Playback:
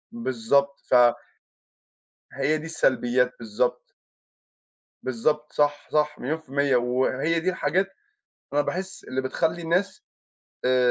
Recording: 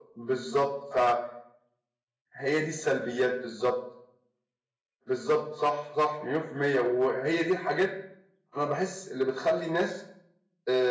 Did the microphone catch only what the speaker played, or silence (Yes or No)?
Yes